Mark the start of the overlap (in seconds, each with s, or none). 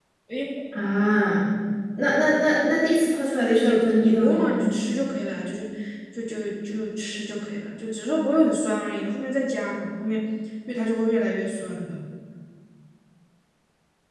3.4 s